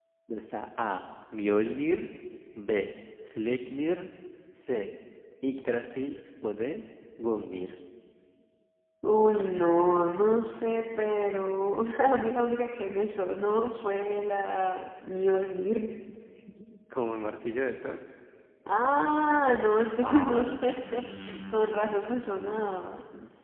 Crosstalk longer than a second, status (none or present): present